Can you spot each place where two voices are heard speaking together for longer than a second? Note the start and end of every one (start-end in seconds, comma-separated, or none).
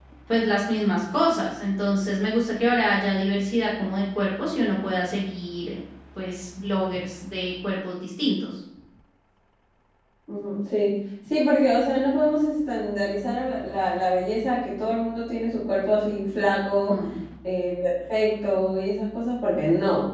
none